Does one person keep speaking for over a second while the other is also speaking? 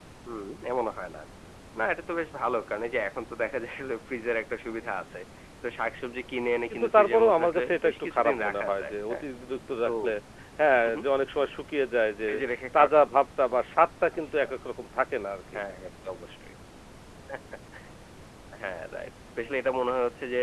Yes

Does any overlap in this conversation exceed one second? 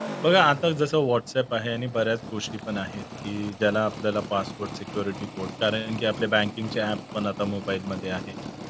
No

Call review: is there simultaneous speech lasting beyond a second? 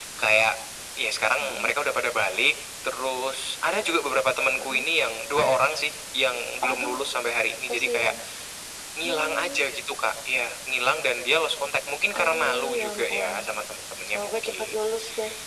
Yes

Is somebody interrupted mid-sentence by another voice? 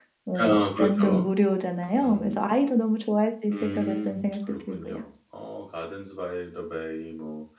Yes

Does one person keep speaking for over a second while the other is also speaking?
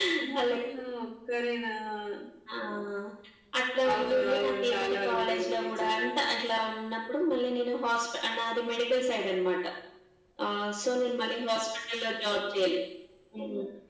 Yes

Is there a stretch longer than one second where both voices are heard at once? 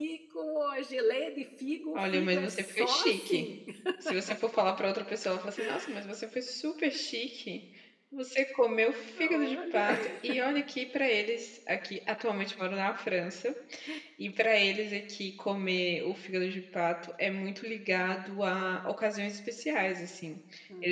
Yes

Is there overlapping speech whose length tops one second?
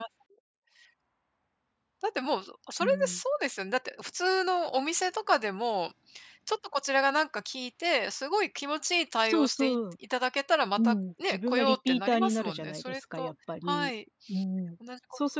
Yes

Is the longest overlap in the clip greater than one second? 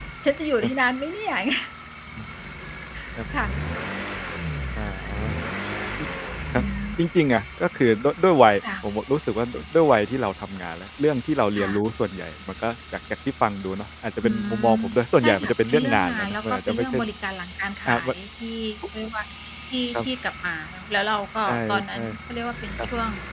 Yes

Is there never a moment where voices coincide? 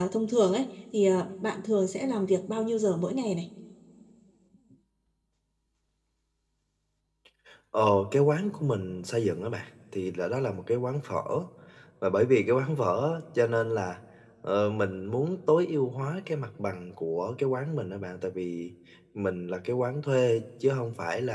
Yes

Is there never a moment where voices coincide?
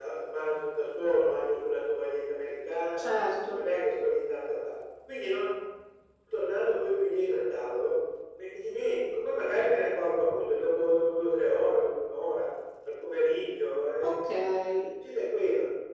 Yes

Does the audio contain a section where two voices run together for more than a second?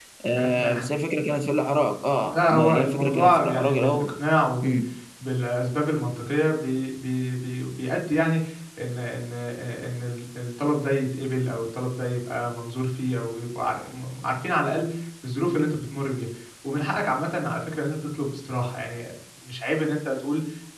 Yes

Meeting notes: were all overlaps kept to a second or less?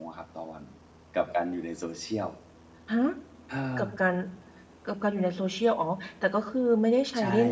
Yes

